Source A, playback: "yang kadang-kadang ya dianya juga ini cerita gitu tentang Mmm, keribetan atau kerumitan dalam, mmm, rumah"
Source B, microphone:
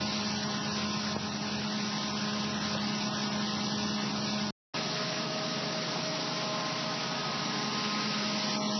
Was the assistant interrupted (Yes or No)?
No